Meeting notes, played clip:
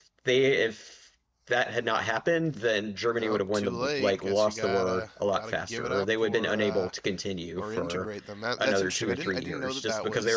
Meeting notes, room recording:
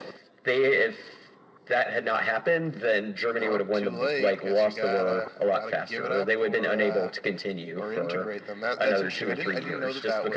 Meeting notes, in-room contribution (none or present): none